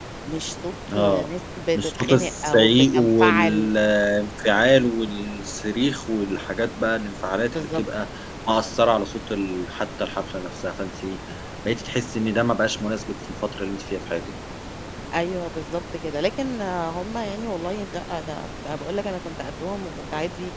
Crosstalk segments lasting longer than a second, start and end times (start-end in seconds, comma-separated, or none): 1.8-3.7